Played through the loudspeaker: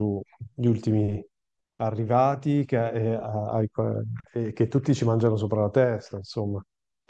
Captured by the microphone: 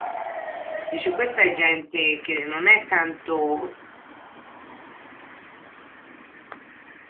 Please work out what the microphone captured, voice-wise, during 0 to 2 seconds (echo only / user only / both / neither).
user only